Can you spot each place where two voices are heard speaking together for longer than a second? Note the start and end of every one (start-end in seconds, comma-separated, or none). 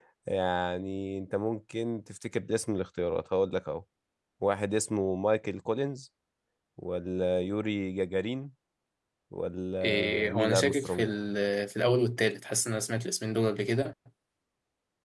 9.8-11.1